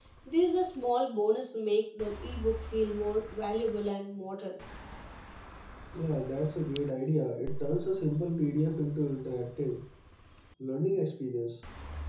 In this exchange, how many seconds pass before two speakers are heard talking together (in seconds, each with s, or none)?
none